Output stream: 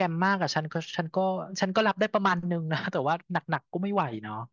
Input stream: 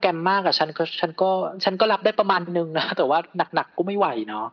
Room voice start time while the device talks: none

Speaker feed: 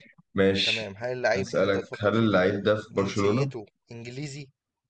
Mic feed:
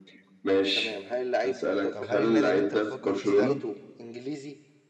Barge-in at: 2 s

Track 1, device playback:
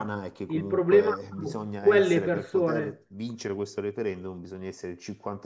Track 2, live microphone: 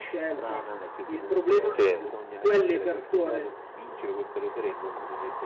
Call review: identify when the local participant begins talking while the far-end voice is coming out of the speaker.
2 s

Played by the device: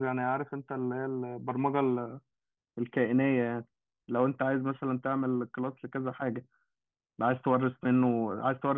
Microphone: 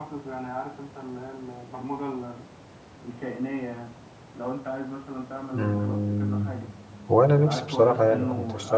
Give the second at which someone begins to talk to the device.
6 s

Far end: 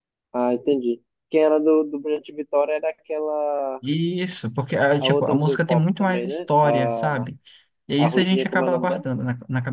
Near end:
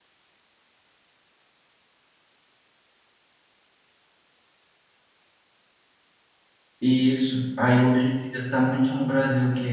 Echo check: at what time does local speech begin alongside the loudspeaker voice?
7 s

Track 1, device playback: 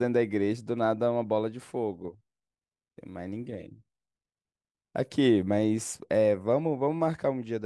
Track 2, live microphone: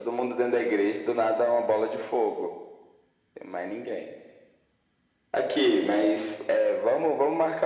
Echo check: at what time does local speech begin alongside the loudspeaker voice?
none

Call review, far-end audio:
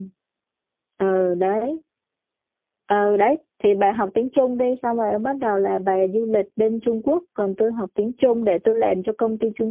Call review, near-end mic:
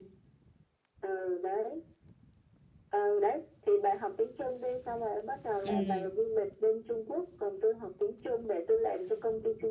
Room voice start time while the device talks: 6 s

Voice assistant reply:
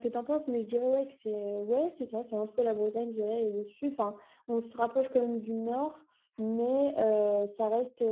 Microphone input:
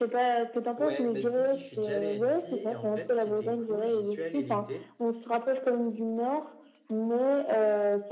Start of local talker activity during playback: 1 s

